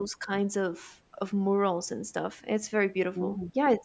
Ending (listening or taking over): listening